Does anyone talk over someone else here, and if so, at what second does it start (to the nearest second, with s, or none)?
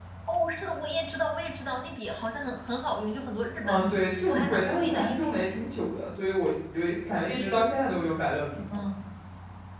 4 s